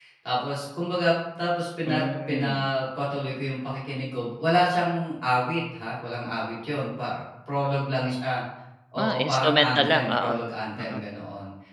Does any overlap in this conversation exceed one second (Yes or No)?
Yes